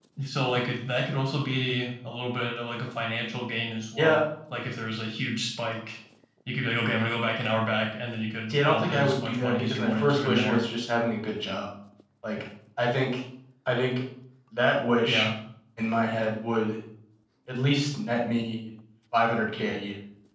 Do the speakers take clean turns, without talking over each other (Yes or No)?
No